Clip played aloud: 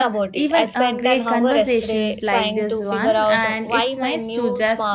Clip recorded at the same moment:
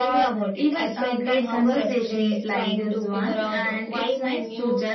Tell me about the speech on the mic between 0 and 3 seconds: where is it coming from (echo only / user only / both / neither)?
echo only